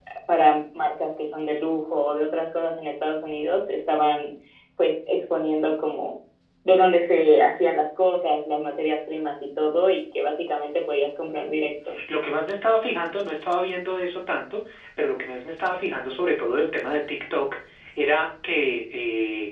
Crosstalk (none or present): none